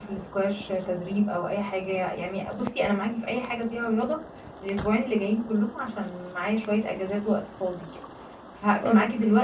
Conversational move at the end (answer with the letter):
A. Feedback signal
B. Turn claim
A